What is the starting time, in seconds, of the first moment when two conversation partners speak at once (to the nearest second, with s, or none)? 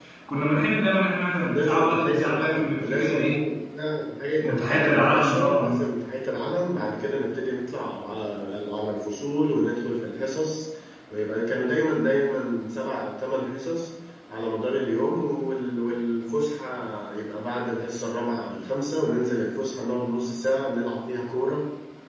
1 s